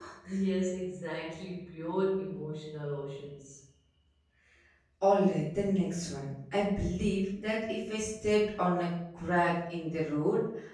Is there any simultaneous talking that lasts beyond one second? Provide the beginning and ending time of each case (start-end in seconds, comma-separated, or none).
none